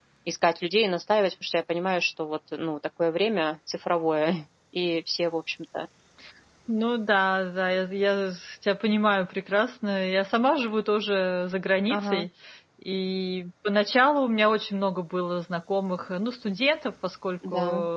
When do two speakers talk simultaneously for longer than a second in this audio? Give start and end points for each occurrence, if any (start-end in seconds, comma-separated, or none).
none